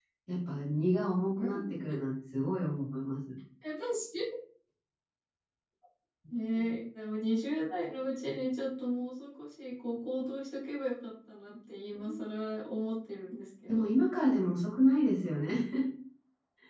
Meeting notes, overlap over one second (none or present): none